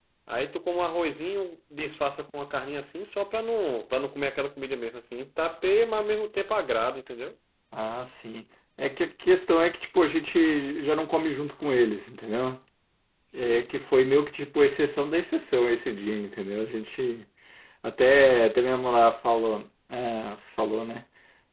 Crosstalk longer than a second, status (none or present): none